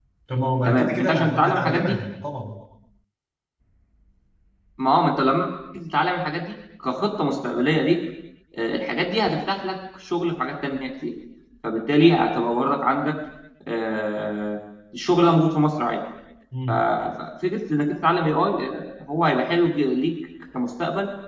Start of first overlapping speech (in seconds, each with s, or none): 0.7 s